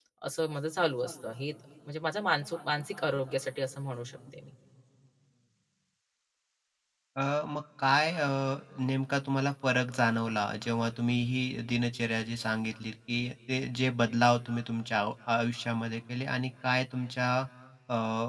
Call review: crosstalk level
none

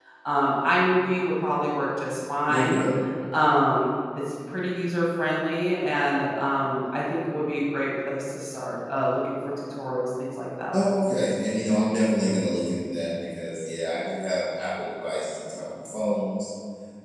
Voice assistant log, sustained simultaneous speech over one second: none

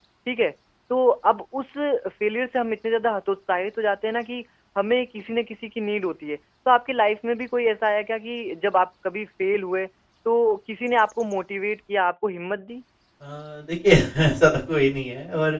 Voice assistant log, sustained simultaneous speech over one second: none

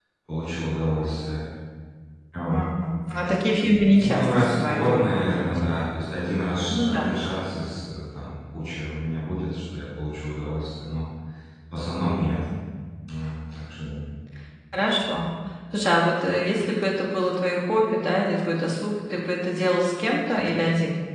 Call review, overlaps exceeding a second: present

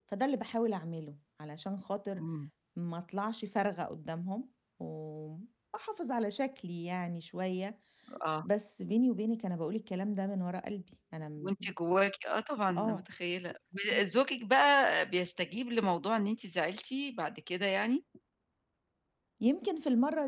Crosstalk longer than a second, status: none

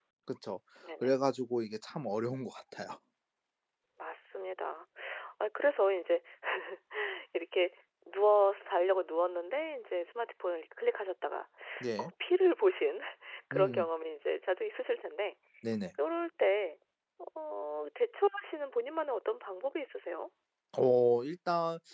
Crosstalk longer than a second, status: none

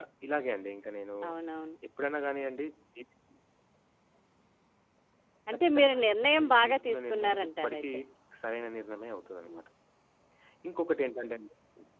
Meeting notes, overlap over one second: present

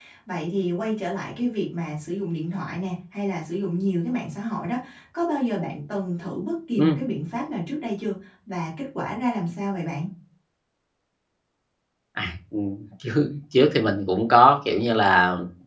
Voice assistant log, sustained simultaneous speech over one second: none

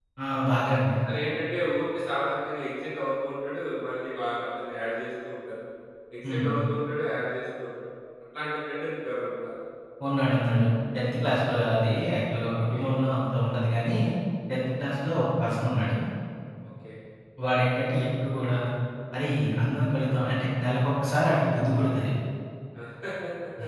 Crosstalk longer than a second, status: none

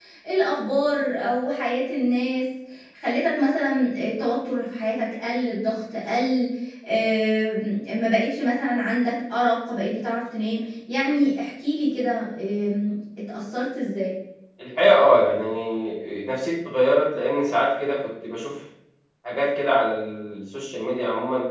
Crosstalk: none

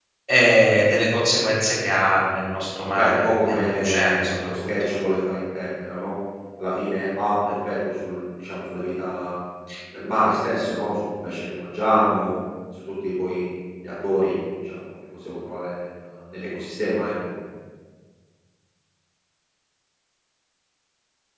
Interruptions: present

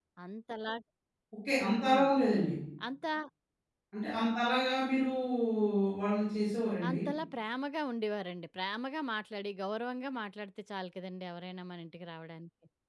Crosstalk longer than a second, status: none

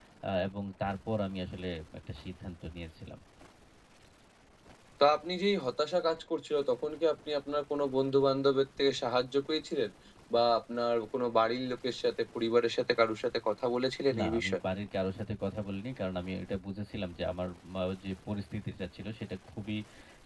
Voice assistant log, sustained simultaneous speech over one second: none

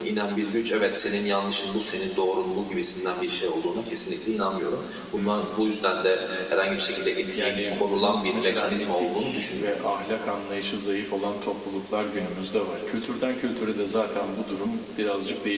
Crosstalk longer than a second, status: present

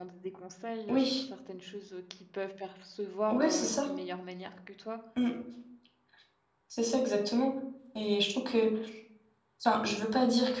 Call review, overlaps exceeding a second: none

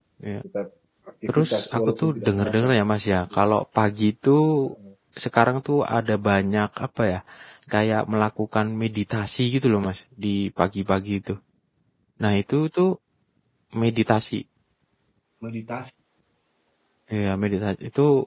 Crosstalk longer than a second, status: present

